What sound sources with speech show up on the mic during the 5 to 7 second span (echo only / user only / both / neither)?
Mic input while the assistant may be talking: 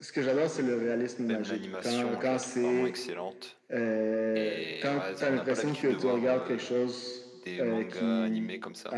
both